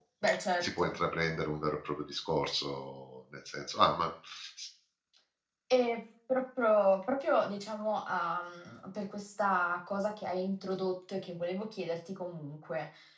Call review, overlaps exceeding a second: none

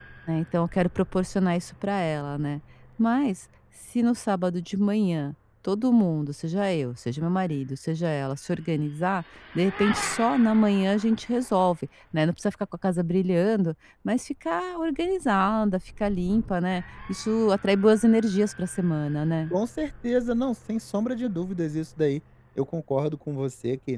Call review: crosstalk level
none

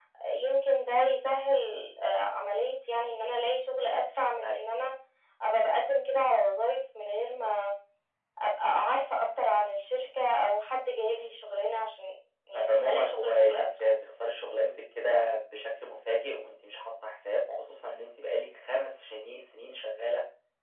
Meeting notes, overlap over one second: present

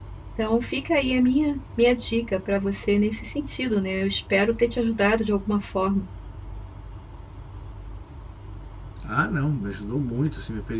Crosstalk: none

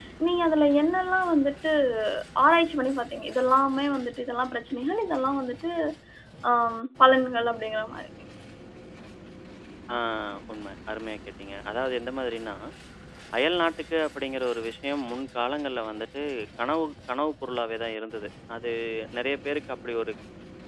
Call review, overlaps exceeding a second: none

